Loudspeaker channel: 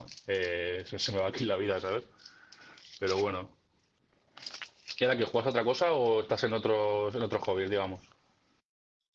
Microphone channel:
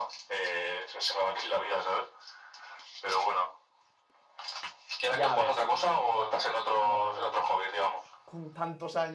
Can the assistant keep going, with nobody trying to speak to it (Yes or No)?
No